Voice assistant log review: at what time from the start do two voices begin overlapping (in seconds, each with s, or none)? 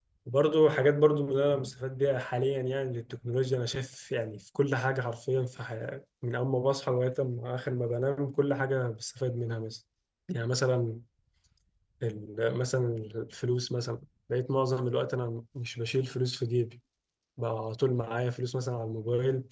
none